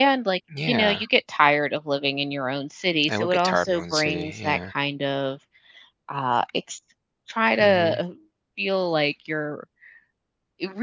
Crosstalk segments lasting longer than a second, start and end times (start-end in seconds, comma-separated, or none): 3.1-4.6